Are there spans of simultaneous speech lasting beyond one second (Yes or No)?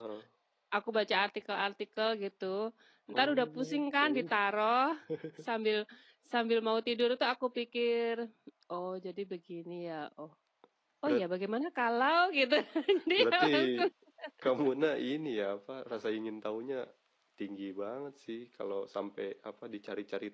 Yes